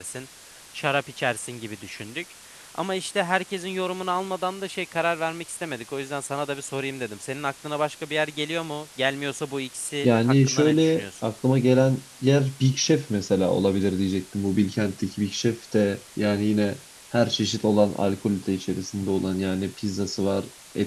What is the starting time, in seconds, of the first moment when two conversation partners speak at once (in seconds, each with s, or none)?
10.0 s